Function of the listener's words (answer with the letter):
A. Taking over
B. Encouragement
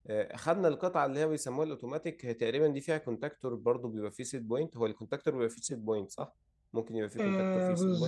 A